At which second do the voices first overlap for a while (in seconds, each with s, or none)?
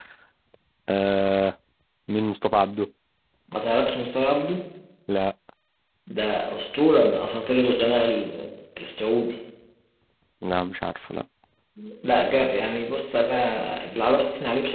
none